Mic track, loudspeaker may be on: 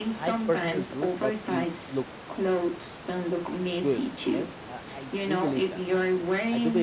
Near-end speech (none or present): present